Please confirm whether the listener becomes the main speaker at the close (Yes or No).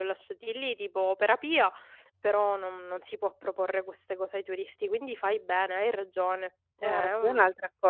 Yes